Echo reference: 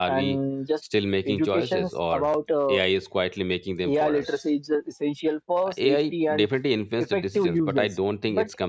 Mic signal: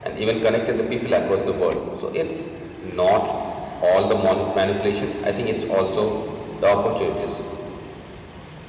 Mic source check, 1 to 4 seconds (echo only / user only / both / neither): user only